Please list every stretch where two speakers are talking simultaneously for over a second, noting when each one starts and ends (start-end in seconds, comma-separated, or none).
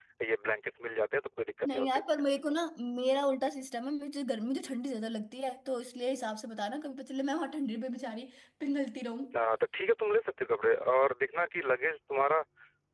none